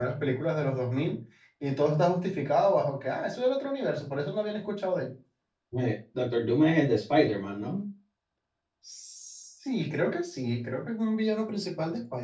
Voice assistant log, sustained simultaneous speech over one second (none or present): none